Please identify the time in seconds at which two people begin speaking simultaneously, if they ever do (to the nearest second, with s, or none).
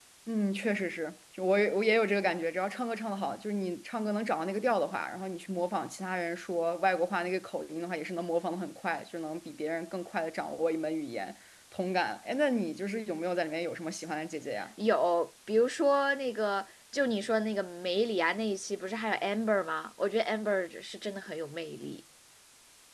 none